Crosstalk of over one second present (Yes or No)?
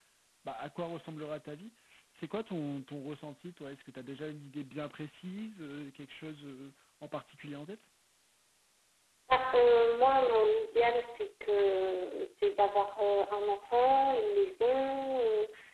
No